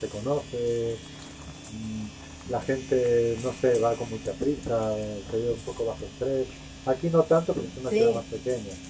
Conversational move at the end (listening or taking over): listening